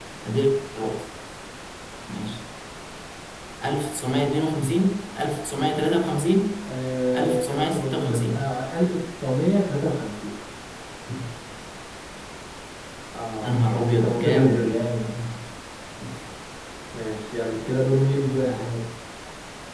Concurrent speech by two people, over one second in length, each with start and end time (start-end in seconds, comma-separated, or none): 7.2-8.5, 13.4-14.8